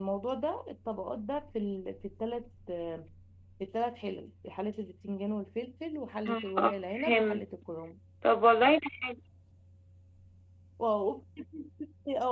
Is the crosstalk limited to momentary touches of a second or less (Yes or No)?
No